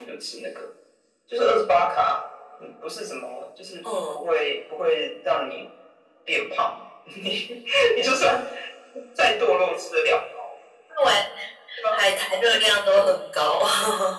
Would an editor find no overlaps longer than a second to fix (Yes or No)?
Yes